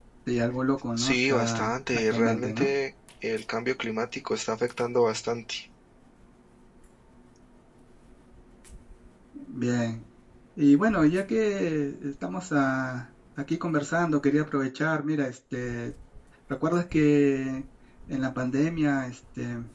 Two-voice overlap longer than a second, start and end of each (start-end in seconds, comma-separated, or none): 1.0-2.7